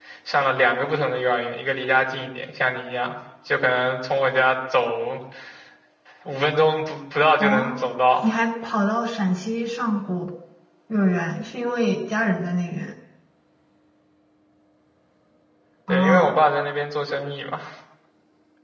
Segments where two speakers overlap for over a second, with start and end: none

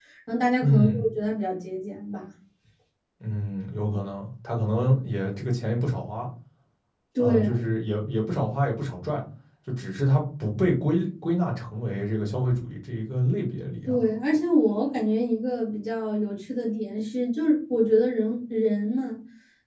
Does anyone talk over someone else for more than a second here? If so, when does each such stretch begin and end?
none

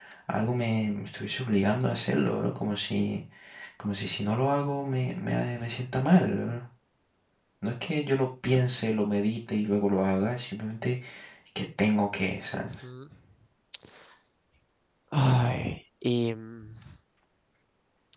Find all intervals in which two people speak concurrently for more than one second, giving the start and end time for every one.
none

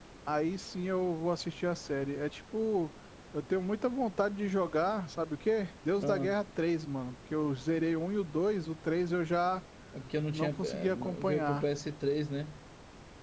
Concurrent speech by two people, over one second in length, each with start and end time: 10.3-11.6

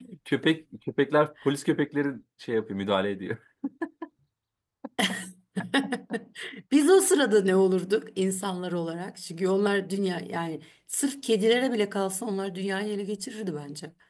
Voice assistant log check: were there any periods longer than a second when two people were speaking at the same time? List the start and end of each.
none

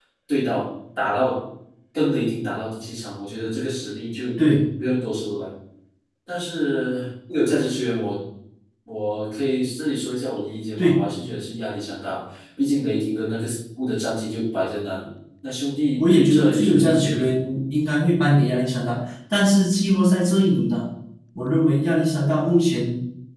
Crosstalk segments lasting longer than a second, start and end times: 16.0-17.3

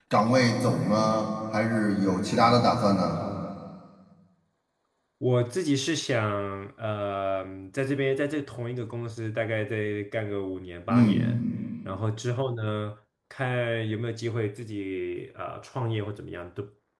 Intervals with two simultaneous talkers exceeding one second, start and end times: none

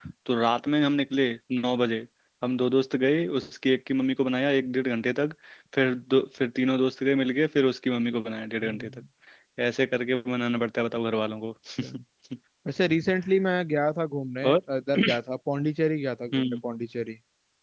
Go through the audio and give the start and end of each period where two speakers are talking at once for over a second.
none

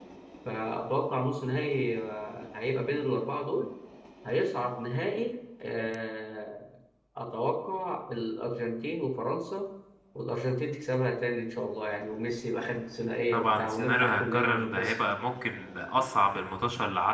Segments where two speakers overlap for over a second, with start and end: 13.3-15.0

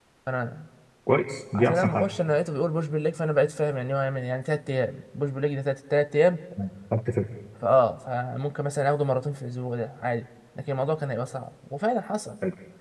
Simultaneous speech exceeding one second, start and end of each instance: none

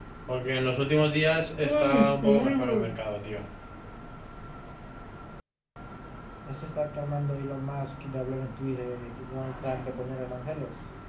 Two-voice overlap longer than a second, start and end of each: 1.6-2.9

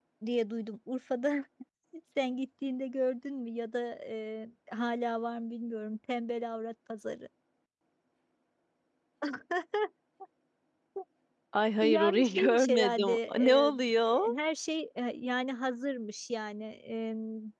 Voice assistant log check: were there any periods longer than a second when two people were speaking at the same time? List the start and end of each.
11.8-14.2

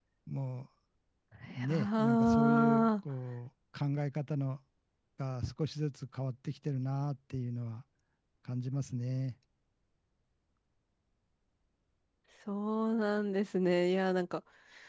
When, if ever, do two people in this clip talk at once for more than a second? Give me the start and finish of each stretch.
1.7-2.9

